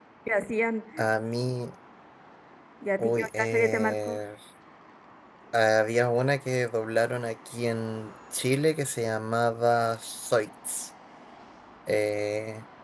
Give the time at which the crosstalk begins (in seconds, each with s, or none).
3.0 s